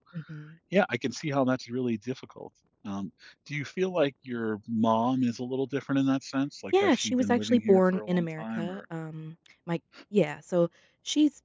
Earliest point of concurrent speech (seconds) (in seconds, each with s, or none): 6.7 s